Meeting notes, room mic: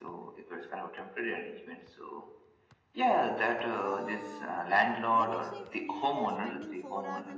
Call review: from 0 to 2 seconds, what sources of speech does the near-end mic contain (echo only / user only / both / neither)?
echo only